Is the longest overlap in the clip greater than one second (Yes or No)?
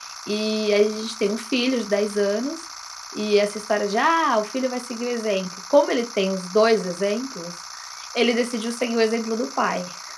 No